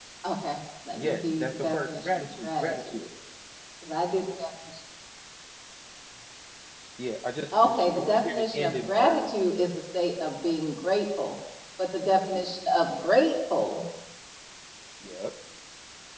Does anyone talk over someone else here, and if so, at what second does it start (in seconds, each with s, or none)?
1.0 s